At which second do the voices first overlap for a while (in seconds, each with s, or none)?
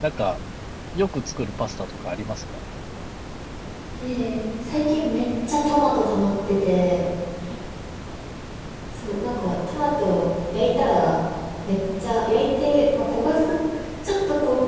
none